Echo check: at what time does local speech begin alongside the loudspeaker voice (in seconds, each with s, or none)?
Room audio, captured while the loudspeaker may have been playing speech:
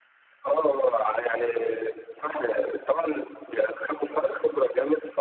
none